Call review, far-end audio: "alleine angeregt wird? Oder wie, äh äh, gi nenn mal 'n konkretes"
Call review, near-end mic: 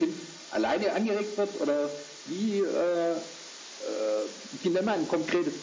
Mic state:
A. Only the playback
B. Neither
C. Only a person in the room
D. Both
A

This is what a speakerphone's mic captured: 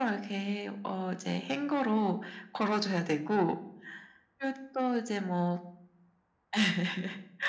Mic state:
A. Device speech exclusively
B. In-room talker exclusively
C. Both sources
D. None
A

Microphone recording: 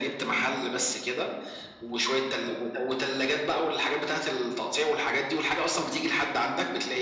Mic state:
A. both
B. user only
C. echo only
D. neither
C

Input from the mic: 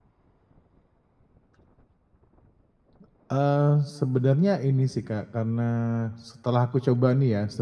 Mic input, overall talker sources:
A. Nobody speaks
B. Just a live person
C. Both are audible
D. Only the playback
B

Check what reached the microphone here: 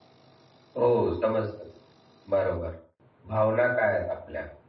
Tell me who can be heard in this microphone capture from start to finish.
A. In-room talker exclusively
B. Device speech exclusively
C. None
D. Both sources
A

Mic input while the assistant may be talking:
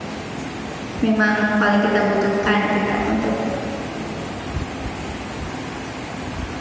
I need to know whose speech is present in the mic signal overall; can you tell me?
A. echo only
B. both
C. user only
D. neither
C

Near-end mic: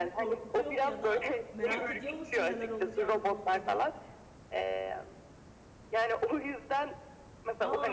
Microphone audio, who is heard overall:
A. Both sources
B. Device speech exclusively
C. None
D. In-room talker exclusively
A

